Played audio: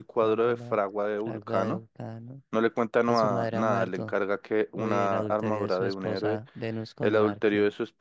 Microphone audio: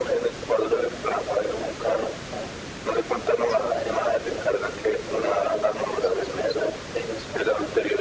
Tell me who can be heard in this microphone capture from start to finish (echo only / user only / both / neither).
echo only